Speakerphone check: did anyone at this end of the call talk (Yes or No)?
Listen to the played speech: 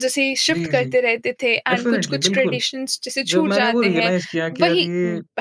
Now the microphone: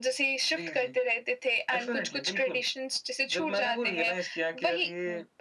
No